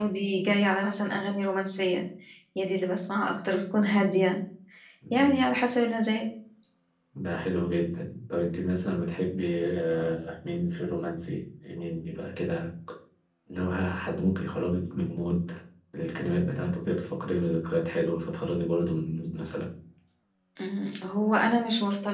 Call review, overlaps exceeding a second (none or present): none